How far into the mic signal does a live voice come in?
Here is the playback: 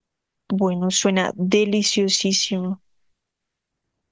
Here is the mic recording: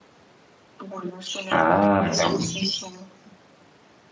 1.5 s

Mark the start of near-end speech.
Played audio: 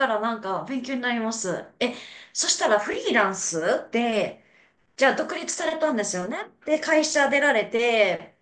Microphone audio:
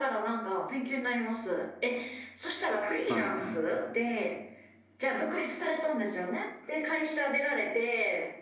3.0 s

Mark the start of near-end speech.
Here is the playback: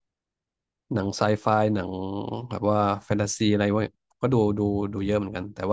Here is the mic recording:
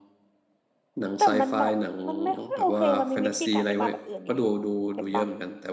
1.2 s

